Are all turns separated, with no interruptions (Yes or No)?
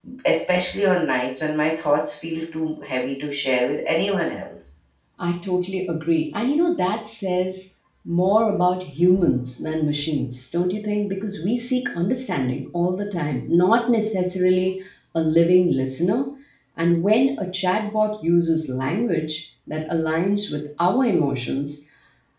Yes